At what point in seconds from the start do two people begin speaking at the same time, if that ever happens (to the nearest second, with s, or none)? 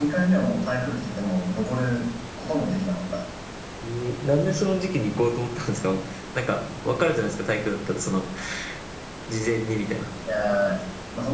none